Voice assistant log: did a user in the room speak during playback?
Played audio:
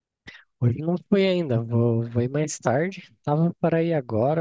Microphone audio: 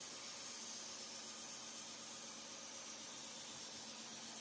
No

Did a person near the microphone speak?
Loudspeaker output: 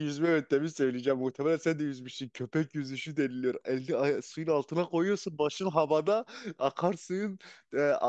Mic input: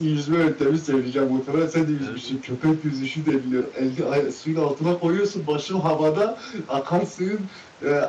Yes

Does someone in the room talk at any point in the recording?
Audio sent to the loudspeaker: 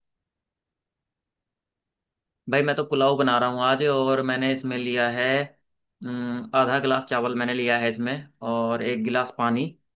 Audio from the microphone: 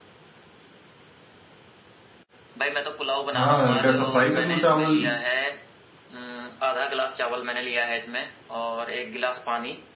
Yes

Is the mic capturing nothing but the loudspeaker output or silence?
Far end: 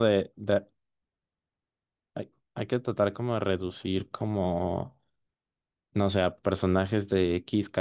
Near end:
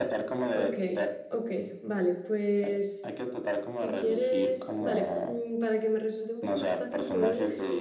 No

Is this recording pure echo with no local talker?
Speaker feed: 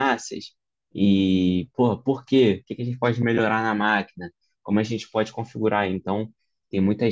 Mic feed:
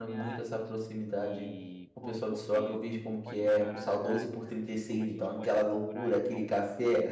No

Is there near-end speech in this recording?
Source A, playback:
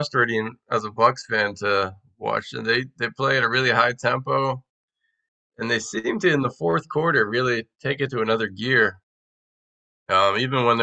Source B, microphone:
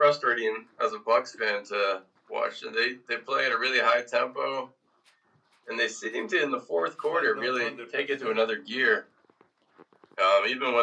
Yes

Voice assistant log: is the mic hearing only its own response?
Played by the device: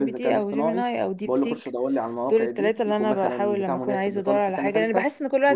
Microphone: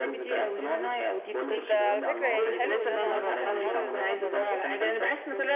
No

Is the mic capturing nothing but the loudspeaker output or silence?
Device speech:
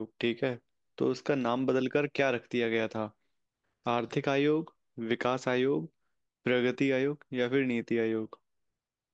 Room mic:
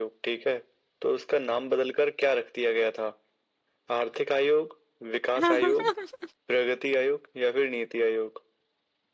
No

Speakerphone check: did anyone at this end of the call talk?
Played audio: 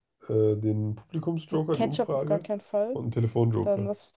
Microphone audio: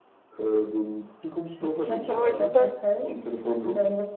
Yes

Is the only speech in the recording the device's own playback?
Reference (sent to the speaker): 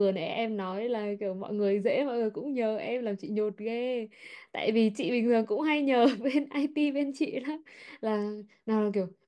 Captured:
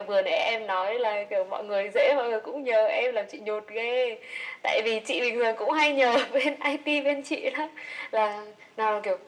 Yes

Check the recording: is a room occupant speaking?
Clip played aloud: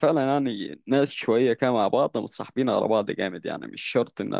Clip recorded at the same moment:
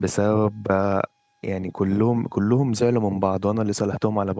Yes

